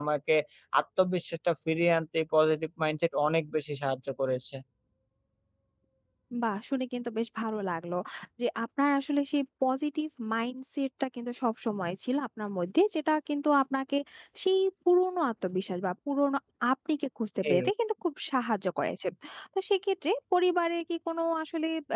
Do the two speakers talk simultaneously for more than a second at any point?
No

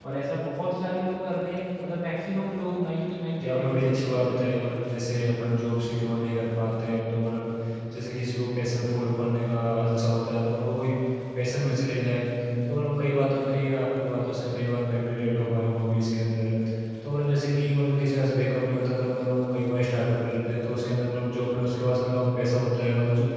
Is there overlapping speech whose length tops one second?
Yes, from 3.4 s

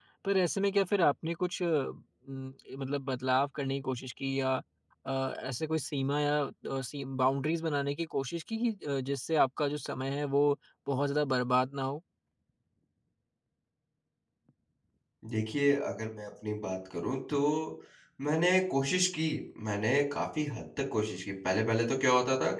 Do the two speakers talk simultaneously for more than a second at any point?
No

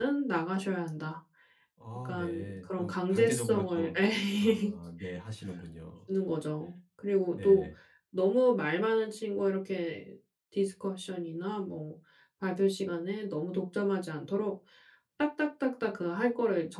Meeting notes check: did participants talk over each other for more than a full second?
Yes, from 2.0 s

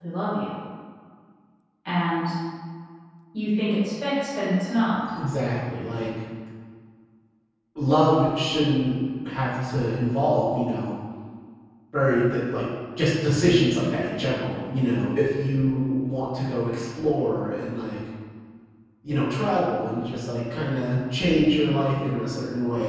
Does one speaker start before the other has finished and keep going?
No

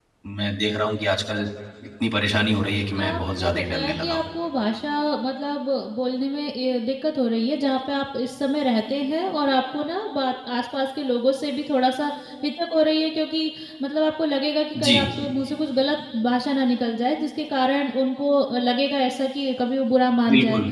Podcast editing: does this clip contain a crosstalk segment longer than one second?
Yes, from 3.0 s

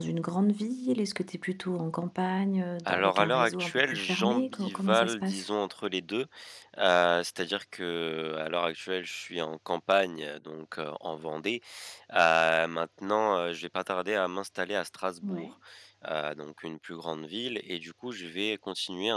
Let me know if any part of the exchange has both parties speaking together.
Yes, from 2.9 s

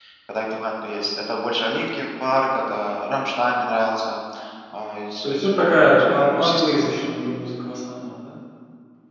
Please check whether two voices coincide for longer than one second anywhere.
Yes, from 5.2 s

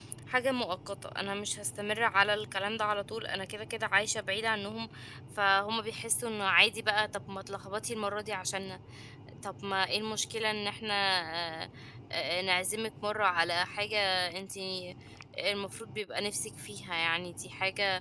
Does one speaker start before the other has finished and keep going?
No

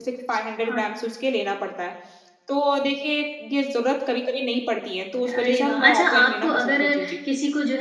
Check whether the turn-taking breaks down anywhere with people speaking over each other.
Yes, from 5.2 s

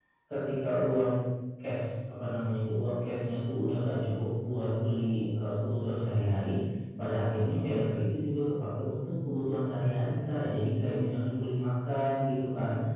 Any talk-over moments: No

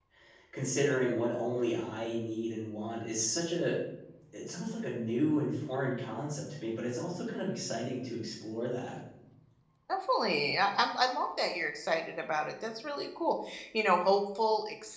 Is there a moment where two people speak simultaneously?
No

